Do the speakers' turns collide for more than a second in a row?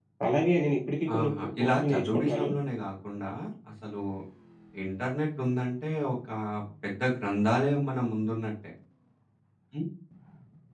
Yes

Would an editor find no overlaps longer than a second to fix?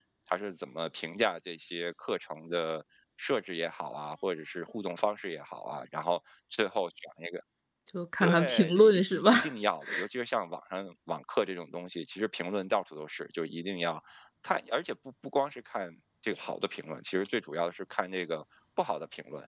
No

